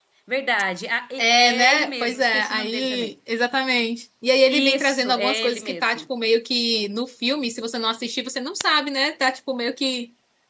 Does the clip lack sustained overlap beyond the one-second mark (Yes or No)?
No